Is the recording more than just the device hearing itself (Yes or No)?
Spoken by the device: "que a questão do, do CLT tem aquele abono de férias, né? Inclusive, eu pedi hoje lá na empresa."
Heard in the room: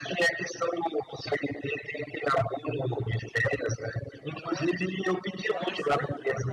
Yes